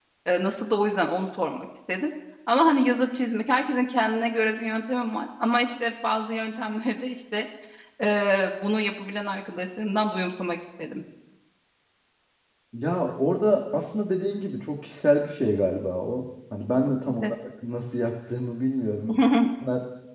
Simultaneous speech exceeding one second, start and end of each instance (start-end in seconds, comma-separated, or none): none